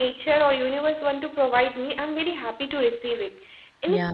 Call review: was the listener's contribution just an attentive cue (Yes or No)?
Yes